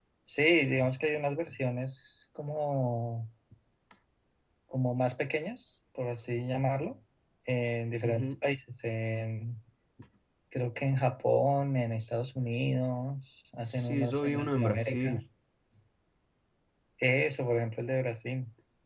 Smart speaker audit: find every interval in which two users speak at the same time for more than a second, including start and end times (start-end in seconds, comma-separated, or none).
13.6-15.2